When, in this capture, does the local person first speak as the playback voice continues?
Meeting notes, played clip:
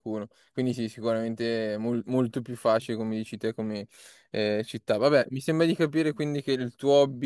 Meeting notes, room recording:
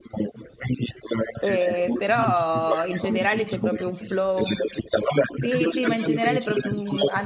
1.4 s

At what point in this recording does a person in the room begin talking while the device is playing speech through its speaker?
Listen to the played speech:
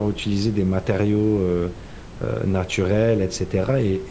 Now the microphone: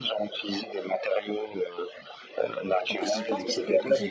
2.9 s

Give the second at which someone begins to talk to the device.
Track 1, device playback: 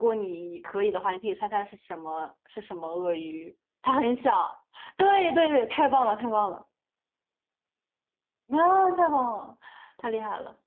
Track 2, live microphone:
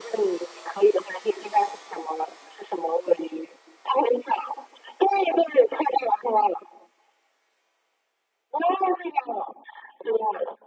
none

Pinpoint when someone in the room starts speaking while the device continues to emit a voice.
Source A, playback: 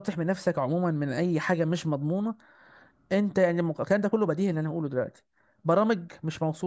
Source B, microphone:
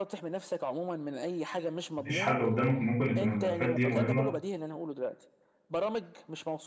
2.0 s

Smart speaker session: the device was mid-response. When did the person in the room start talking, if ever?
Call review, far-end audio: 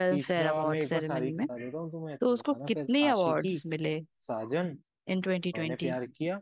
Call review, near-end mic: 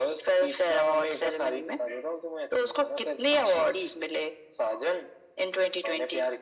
none

